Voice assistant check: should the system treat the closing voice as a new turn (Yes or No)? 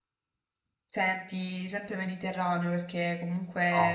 No